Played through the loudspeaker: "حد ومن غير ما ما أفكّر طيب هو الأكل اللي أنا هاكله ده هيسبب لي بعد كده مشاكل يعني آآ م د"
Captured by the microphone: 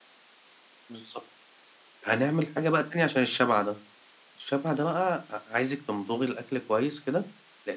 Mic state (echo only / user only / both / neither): user only